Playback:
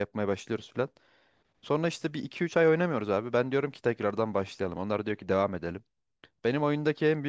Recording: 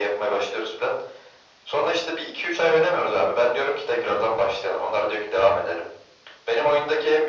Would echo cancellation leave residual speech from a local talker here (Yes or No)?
No